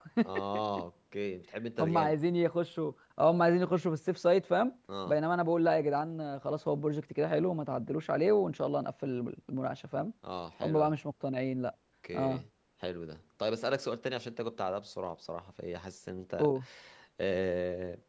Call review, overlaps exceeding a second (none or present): none